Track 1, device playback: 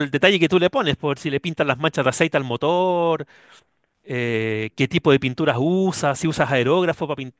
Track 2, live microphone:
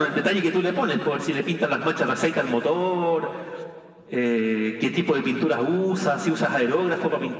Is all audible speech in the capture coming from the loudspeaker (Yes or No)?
Yes